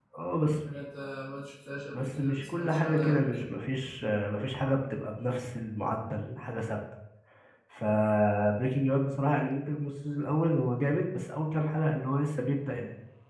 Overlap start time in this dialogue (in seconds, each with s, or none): 1.9 s